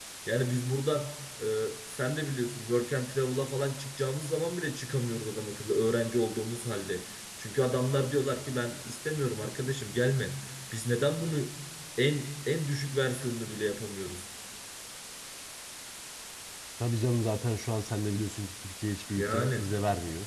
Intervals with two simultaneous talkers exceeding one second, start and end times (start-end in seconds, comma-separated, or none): none